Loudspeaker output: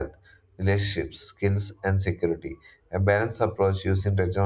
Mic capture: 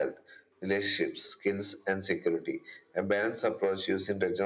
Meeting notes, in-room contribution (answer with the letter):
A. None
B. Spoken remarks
A